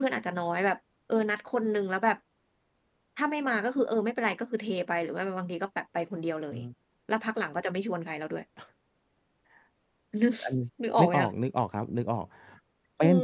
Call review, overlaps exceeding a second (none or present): none